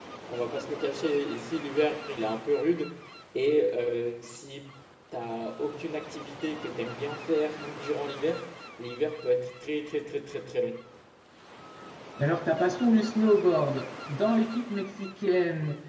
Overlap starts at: none

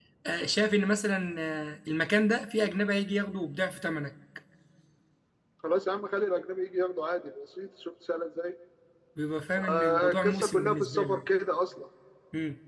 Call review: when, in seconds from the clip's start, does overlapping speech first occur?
10 s

